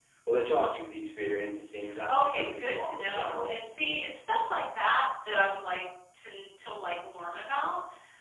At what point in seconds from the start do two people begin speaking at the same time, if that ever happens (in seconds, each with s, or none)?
2.1 s